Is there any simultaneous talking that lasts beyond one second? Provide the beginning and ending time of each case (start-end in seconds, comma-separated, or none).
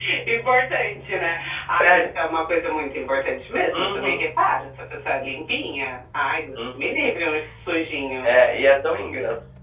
none